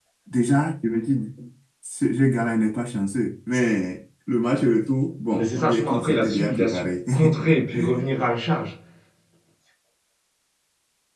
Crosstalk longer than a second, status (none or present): present